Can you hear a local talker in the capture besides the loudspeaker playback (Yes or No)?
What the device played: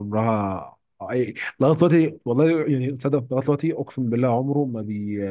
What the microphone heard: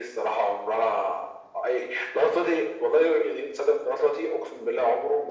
No